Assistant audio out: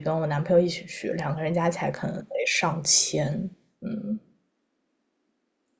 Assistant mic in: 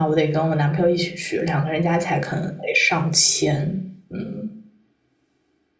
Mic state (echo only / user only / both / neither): echo only